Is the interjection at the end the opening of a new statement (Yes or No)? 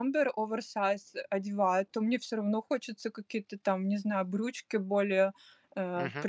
No